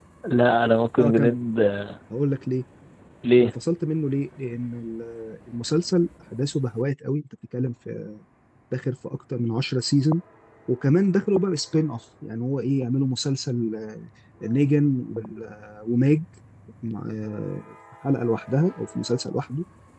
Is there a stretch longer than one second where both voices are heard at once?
No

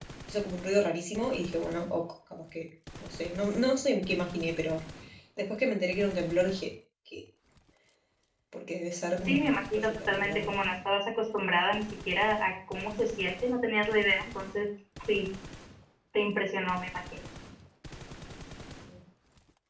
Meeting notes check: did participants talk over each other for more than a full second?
Yes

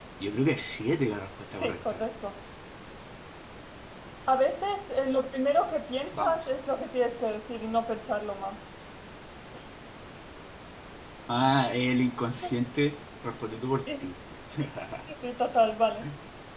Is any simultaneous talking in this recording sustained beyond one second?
No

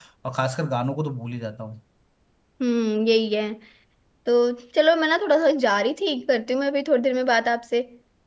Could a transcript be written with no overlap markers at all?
Yes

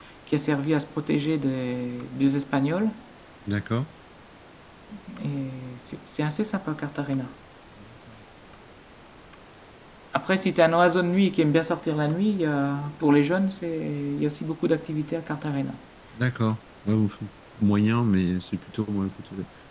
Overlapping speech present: No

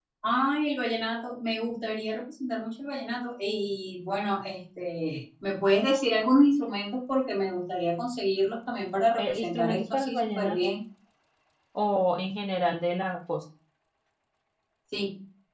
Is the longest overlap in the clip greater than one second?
Yes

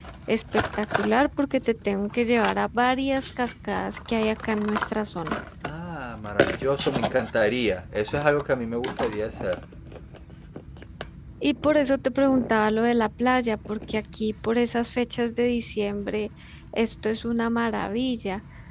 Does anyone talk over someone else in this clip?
No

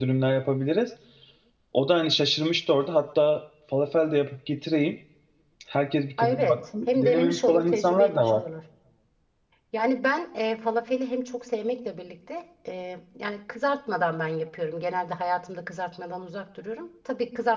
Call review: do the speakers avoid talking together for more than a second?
No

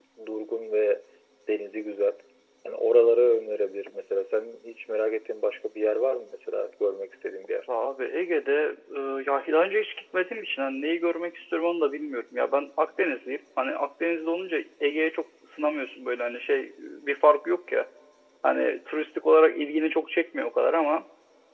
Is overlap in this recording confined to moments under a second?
Yes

